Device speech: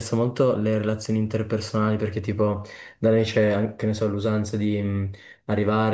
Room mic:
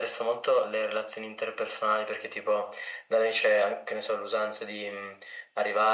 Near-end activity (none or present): none